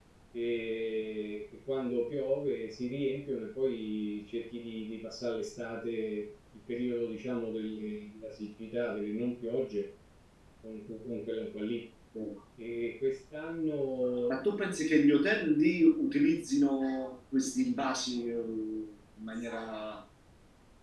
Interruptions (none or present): none